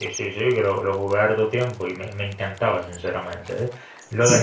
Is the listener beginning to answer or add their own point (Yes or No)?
No